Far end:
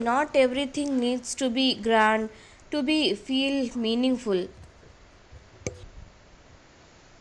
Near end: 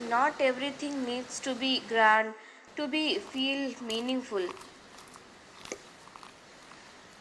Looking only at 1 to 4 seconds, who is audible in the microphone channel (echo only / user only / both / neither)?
echo only